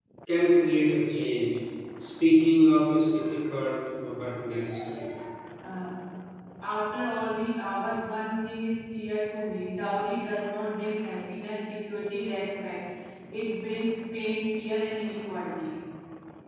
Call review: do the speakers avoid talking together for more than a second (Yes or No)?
Yes